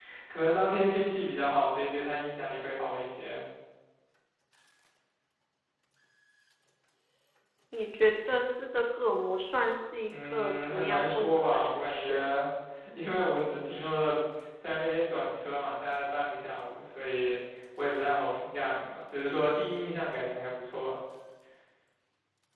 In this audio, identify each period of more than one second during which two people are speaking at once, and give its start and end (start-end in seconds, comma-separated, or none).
10.2-12.2